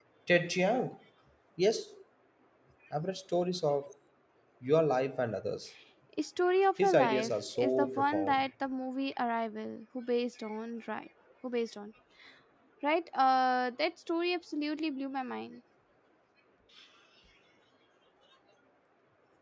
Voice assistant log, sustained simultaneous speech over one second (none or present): present